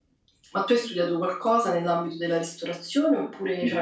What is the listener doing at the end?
taking over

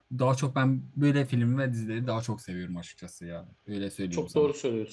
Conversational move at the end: taking over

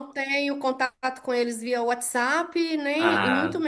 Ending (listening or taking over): listening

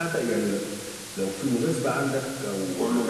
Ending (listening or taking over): listening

